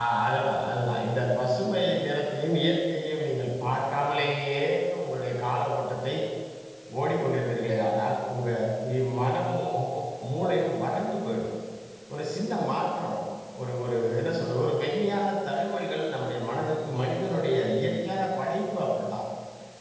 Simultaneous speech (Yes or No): No